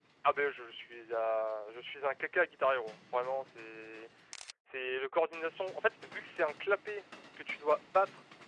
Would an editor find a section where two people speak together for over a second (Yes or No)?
No